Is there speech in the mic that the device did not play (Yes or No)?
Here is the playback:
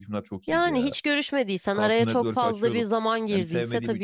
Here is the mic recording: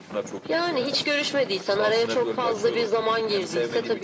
No